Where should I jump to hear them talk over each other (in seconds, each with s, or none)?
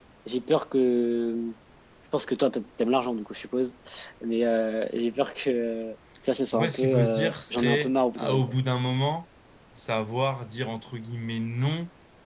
6.5 s